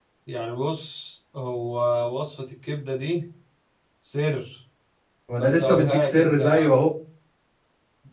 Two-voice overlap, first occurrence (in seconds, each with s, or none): 5.4 s